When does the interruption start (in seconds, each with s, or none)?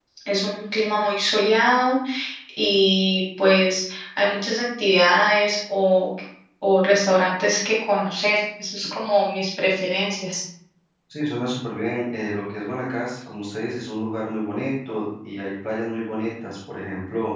none